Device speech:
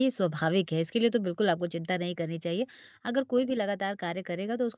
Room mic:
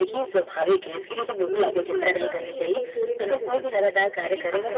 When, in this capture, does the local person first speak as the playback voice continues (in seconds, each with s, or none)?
1.5 s